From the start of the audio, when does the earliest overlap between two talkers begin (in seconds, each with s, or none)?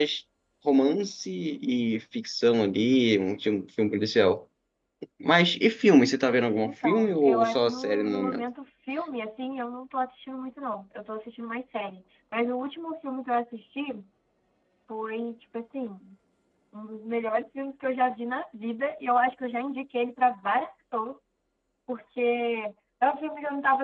6.6 s